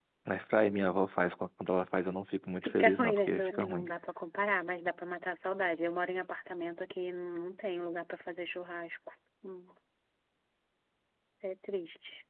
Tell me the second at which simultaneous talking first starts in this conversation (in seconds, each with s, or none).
2.5 s